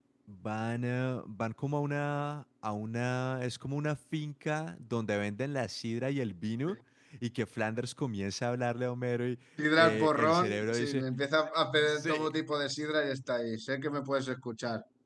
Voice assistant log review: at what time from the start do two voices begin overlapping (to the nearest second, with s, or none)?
10 s